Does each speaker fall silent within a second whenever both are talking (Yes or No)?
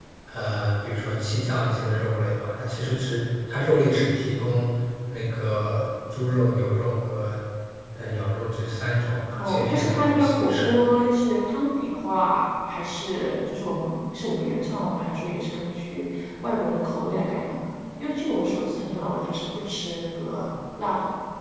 No